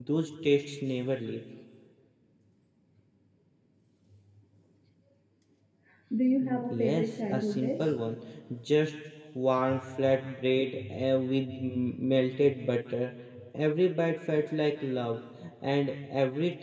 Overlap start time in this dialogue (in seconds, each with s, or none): 6.4 s